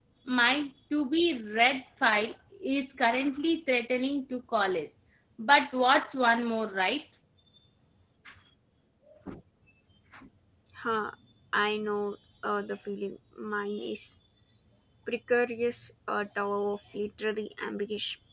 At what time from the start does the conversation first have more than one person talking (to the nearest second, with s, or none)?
none